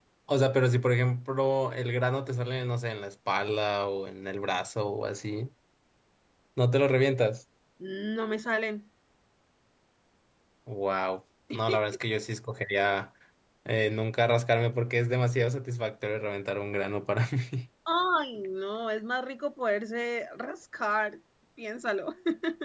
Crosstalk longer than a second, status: none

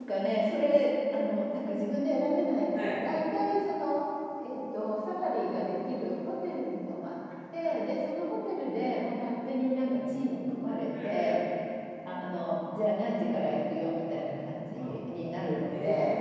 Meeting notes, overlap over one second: none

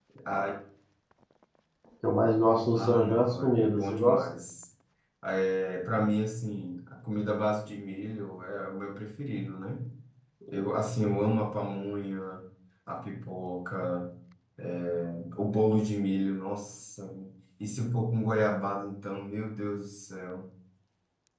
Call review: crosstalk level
present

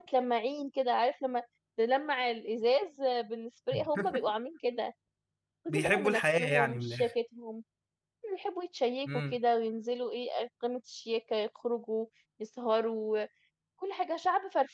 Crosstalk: present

